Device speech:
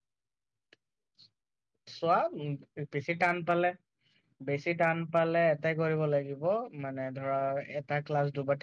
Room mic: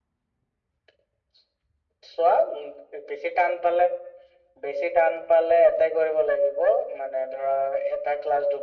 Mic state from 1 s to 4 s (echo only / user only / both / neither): echo only